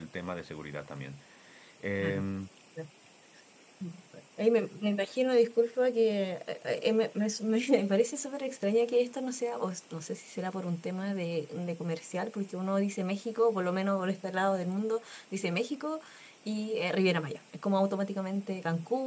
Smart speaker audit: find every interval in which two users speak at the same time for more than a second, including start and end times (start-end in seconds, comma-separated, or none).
none